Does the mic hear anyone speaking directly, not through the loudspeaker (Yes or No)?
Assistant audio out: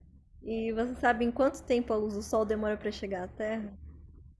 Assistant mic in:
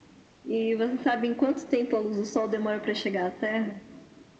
No